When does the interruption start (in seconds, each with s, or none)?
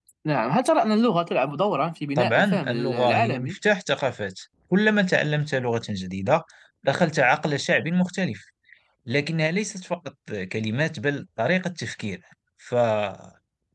2.2 s